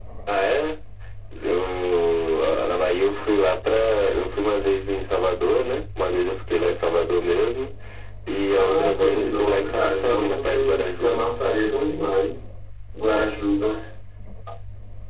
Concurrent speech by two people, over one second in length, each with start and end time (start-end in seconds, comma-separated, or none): 8.5-11.2